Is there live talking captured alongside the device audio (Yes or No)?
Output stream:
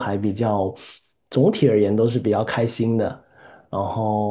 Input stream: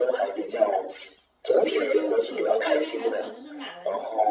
Yes